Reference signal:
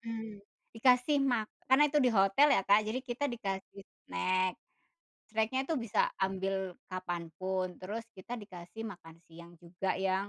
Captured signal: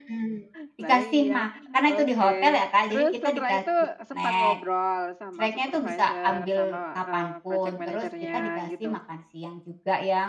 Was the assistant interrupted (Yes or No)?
Yes